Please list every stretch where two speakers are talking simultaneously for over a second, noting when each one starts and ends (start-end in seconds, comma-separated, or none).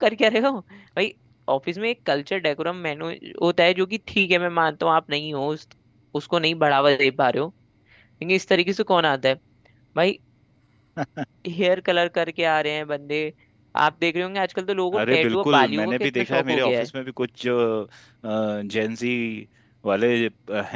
15.1-16.9